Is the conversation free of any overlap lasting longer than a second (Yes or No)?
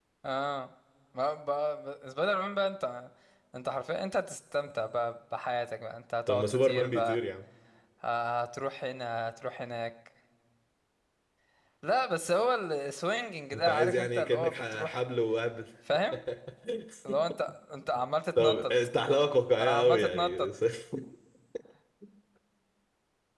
No